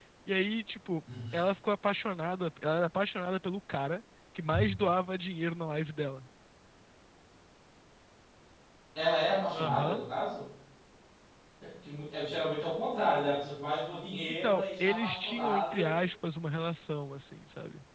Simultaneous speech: Yes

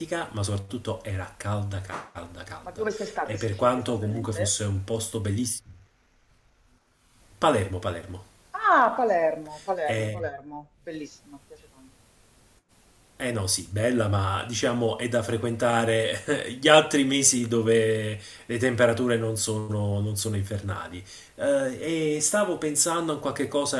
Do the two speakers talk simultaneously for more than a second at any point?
Yes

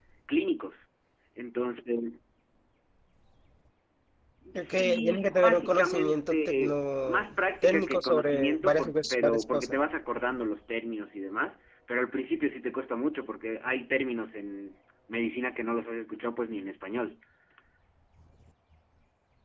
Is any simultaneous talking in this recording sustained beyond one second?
Yes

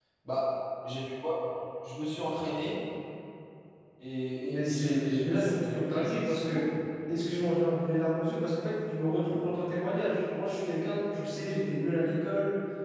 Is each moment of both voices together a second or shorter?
No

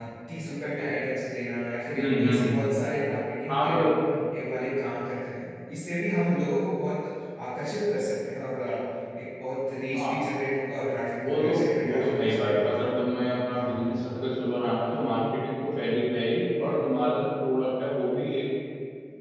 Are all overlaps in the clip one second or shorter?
No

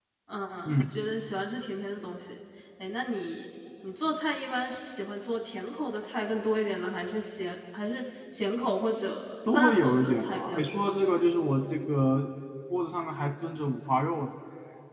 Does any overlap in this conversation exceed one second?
Yes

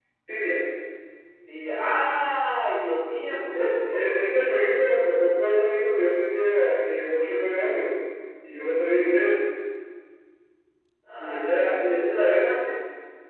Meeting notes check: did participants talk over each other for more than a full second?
Yes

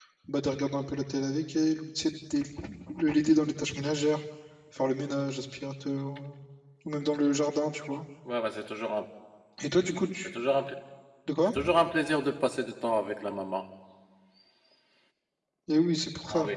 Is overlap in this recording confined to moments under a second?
Yes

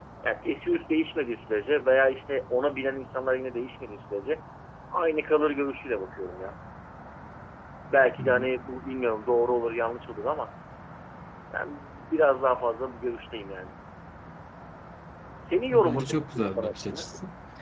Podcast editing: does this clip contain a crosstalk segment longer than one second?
Yes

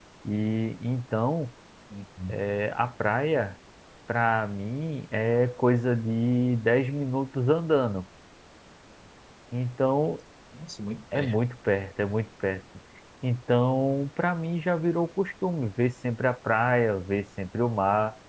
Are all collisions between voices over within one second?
Yes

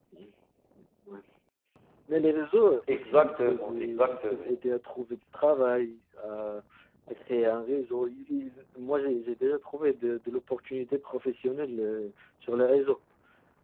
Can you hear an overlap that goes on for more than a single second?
Yes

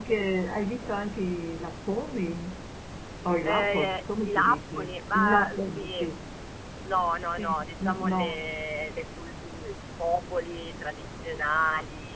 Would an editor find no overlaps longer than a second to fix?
No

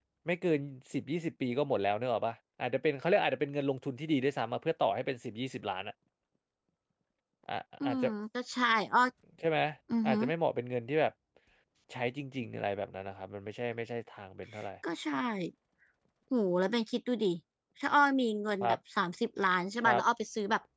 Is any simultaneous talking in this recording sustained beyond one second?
No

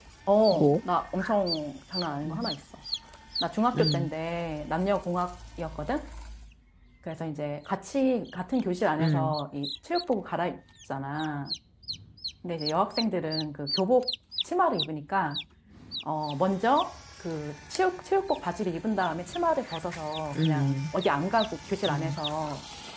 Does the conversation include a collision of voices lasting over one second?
No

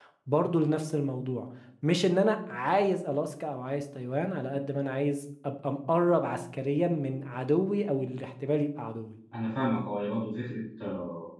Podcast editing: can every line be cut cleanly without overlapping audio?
Yes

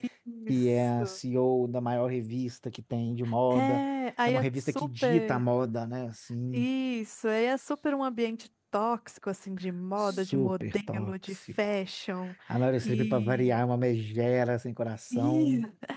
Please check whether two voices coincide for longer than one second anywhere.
Yes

